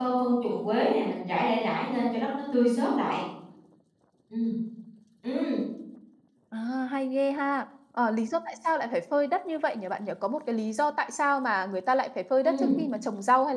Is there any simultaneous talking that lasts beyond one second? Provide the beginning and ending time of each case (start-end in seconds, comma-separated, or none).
none